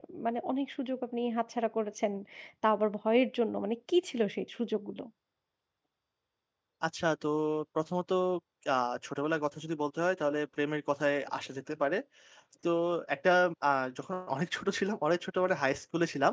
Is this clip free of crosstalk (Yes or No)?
Yes